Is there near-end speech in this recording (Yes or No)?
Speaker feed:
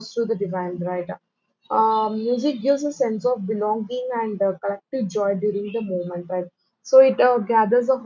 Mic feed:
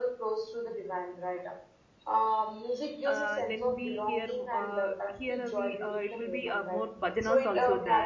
Yes